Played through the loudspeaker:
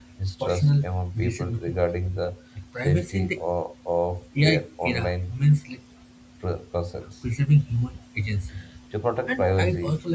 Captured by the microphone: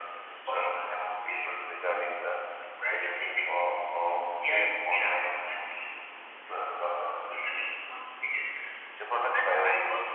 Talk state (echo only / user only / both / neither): echo only